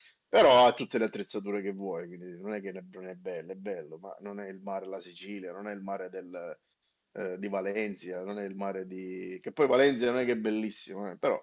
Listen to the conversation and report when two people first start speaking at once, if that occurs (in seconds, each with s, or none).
none